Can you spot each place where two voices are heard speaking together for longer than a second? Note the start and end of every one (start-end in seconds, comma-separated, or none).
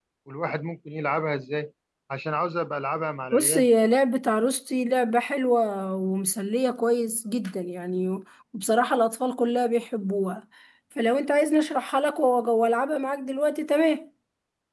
none